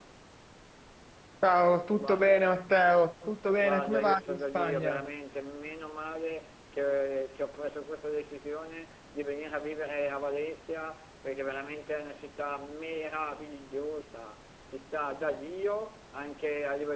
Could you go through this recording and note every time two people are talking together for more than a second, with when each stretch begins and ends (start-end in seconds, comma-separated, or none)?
3.6-5.0